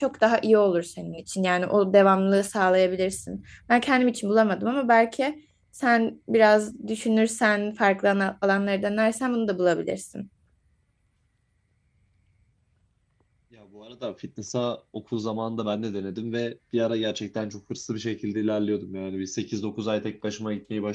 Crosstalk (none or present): none